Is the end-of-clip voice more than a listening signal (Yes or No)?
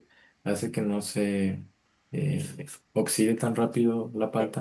Yes